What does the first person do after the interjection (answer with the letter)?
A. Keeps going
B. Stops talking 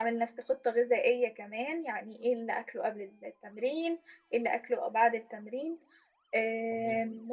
A